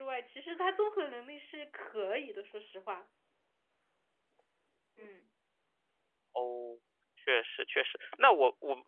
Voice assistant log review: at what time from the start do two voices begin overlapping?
none

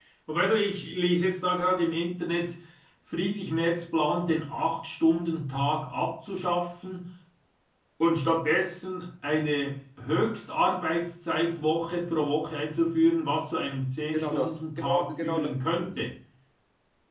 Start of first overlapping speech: 14.1 s

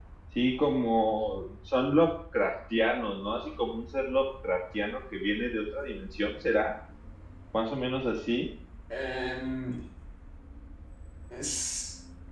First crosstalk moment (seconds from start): none

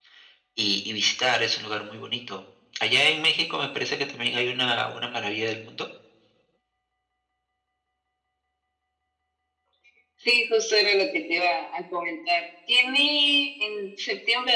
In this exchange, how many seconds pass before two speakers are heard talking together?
none

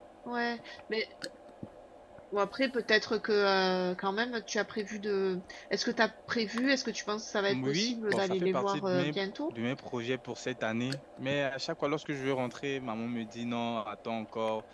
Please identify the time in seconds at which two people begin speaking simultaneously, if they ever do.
7.4 s

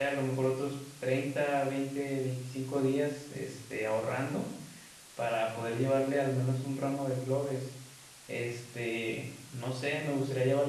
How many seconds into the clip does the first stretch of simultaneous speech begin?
none

